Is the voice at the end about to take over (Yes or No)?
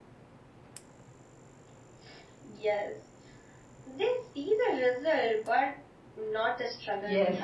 Yes